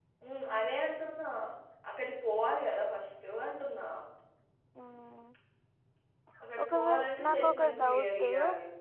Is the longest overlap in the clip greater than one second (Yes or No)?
Yes